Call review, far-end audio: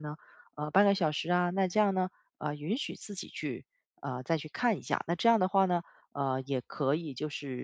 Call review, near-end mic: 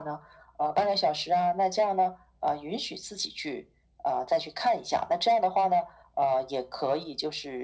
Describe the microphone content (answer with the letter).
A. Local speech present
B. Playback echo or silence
B